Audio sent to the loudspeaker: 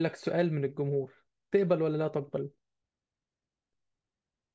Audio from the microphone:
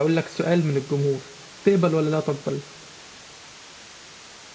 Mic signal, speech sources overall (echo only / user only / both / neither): echo only